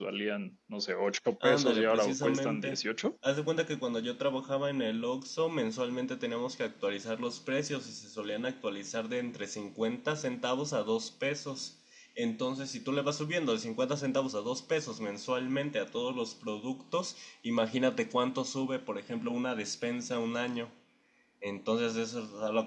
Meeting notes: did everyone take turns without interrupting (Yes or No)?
No